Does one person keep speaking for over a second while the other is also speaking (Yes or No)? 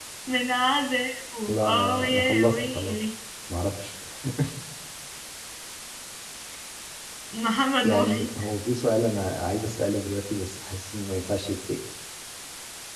Yes